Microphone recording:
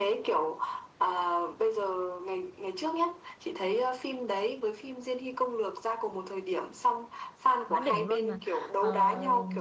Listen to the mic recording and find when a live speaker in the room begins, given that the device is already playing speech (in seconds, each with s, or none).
7.7 s